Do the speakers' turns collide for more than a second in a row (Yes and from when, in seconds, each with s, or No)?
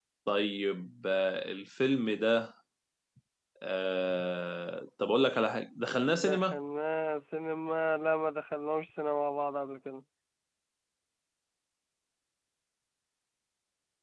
No